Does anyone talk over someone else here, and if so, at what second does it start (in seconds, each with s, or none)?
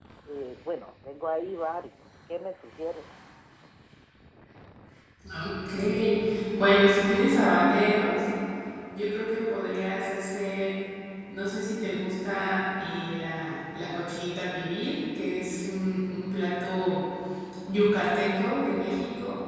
none